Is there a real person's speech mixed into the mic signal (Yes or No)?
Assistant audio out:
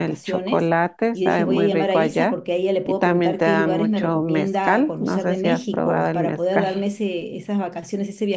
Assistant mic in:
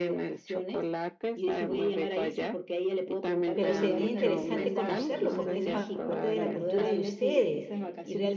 Yes